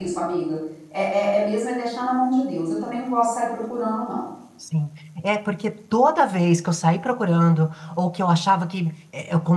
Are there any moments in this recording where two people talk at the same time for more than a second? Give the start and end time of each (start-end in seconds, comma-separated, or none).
none